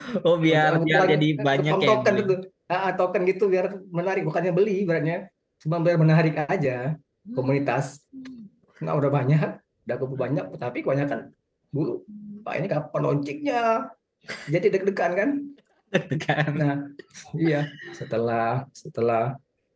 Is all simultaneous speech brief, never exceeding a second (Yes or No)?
No